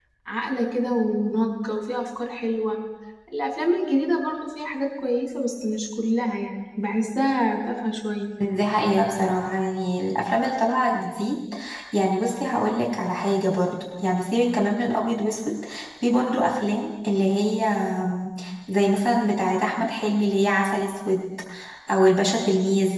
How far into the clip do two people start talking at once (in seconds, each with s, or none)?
none